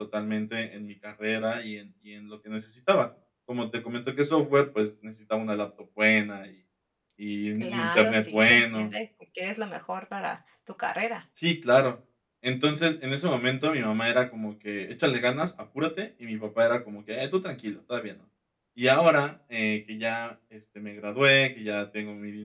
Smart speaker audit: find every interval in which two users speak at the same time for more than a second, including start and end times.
7.6-8.9

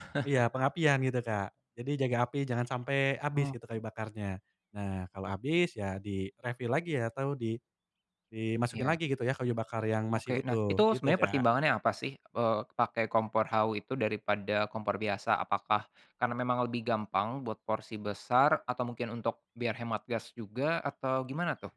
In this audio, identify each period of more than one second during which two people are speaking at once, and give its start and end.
10.2-11.4

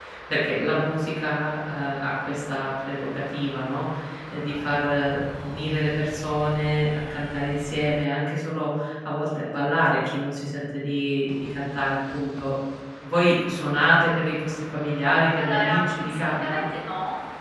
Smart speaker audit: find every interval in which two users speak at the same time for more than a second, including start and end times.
15.4-16.6

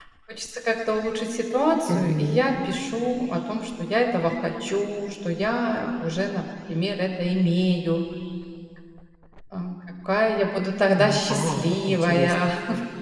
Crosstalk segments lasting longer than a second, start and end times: 11.0-12.3

